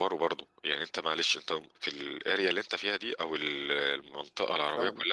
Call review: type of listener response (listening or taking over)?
listening